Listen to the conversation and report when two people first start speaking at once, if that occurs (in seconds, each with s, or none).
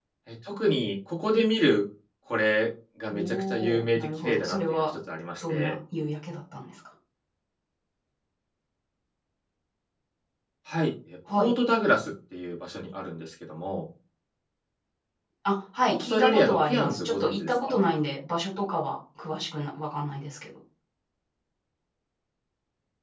3.1 s